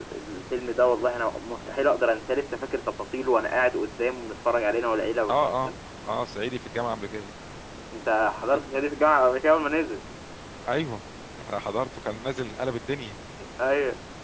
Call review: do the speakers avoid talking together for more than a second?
Yes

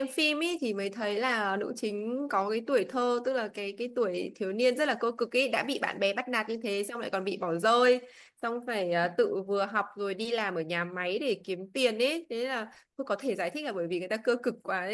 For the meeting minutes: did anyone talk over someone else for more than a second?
No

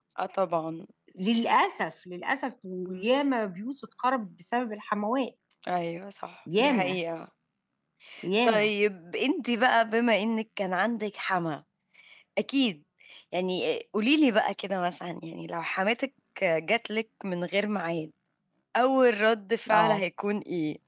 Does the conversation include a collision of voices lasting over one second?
No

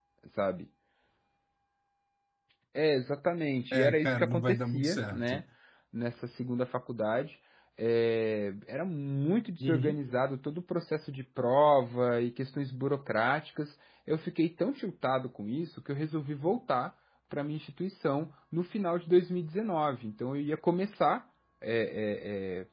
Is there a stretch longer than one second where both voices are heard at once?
Yes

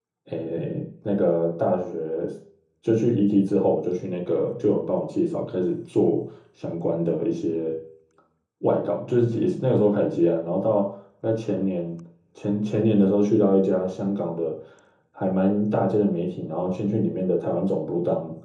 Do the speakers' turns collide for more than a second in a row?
No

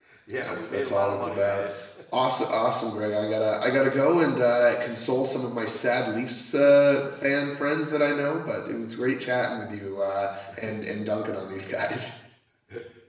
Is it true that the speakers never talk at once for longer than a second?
No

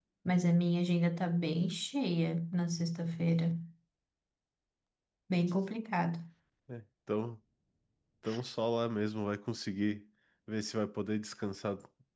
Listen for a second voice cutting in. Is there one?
No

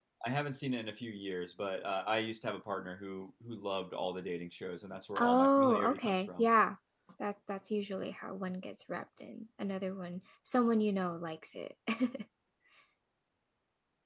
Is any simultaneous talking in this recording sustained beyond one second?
Yes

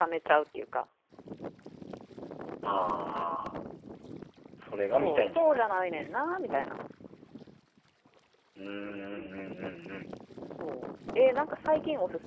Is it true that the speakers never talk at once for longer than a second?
No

